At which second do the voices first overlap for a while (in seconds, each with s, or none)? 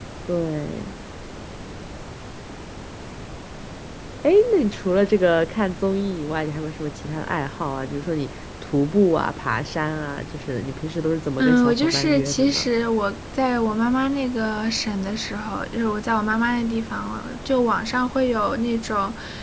11.4 s